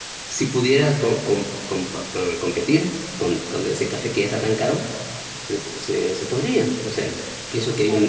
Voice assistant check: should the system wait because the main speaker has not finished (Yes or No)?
No